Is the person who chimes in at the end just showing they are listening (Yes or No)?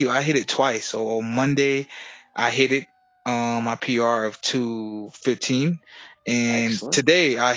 Yes